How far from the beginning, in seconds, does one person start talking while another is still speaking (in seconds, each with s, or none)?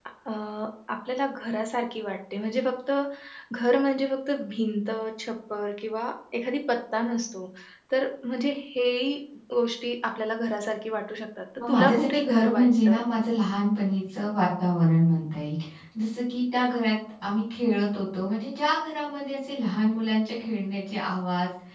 11.6 s